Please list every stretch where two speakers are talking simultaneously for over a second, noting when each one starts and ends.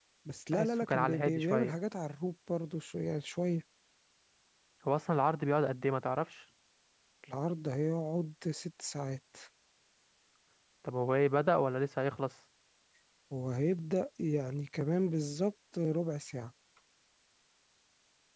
0.5-1.7

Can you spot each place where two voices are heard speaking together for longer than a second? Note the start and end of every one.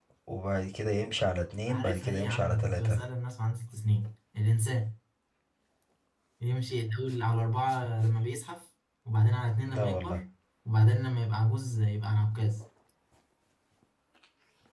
1.7-3.0

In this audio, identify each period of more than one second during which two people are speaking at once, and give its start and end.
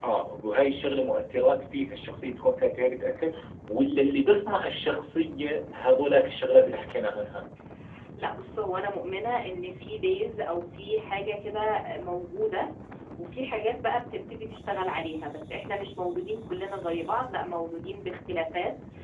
none

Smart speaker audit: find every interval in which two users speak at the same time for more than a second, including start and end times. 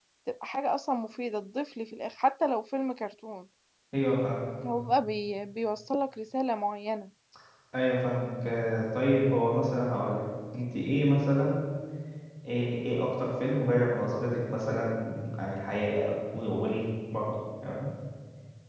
none

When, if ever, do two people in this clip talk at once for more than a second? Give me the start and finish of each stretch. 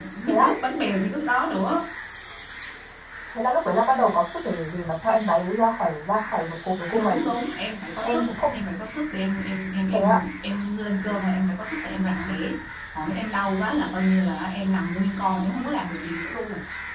none

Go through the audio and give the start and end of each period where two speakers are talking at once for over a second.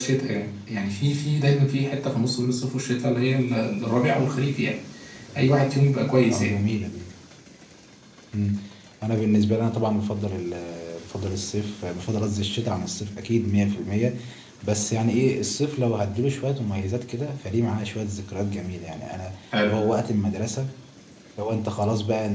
none

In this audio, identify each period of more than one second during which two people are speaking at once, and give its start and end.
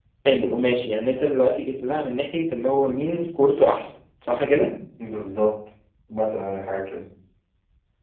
none

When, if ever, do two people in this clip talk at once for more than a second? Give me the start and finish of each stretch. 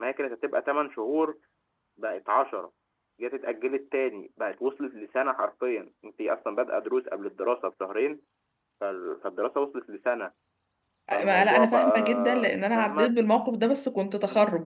11.1-13.1

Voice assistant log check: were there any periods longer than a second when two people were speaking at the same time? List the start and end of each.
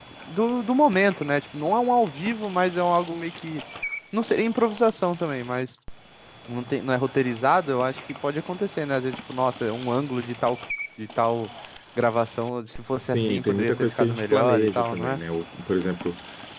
13.1-15.2

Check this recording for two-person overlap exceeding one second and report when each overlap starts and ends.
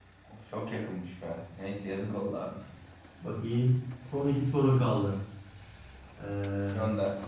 none

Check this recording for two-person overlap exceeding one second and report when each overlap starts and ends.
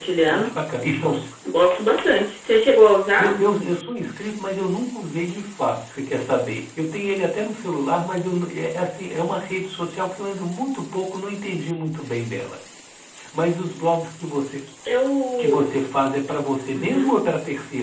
none

